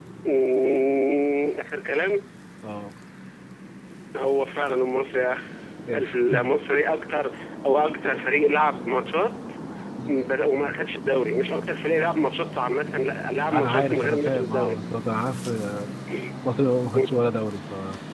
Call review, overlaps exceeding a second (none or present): present